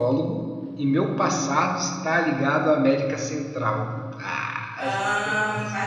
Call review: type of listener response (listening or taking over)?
taking over